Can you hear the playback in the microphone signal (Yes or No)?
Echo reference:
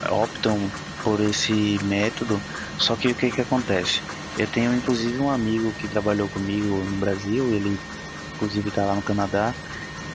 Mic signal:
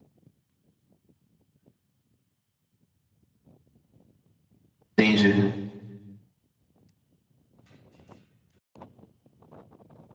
No